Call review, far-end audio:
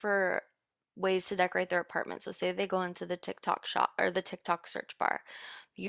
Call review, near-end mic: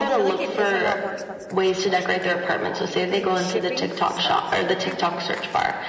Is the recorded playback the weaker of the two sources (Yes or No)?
No